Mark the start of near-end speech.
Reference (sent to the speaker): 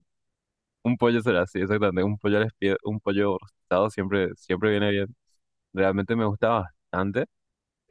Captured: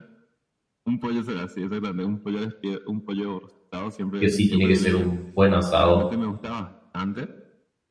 4.2 s

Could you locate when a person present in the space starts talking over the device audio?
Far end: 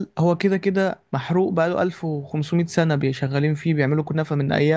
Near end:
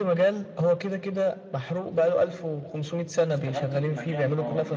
3.3 s

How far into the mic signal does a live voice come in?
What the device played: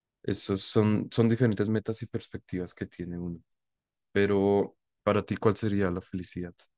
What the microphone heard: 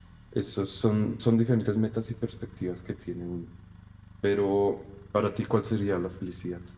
none

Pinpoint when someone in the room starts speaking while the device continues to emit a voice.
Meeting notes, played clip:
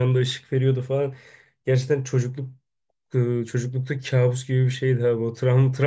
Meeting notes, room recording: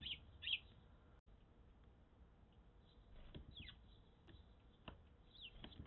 none

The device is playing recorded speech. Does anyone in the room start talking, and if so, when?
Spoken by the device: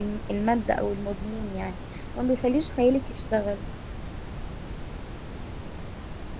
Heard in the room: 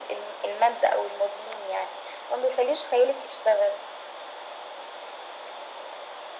none

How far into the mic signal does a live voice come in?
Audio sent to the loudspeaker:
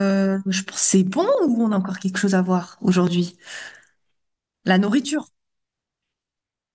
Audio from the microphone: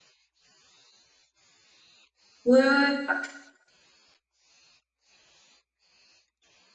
2.4 s

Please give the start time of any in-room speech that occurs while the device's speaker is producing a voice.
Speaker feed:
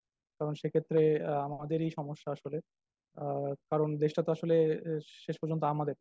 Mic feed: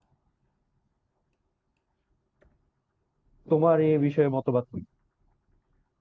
3.5 s

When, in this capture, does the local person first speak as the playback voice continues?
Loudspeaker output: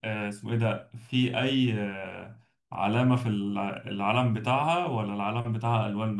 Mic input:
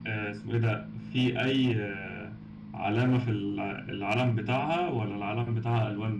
none

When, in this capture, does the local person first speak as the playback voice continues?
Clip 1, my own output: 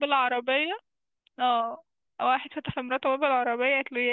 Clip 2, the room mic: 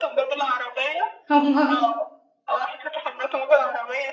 1.4 s

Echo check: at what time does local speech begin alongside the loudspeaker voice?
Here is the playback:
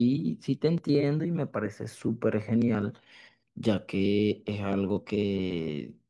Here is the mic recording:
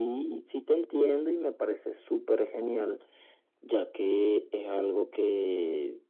none

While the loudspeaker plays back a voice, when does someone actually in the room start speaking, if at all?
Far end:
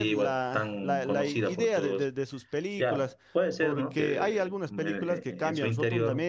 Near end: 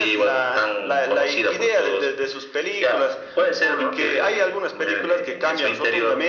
none

